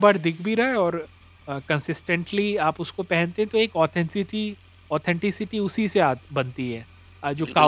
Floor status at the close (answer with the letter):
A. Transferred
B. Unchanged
A